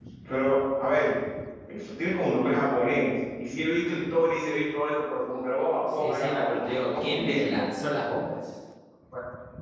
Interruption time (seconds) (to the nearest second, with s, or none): 6 s